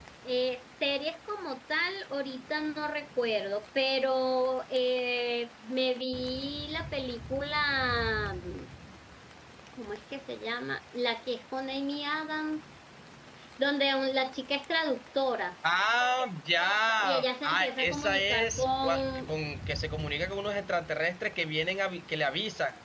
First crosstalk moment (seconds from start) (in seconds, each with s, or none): 17.0 s